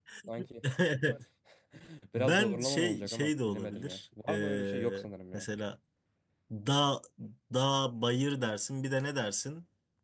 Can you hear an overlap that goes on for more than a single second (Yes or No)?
Yes